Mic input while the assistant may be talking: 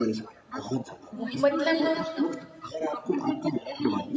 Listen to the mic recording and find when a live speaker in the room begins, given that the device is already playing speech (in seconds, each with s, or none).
1.1 s